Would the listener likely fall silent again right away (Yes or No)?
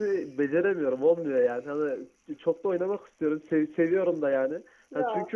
Yes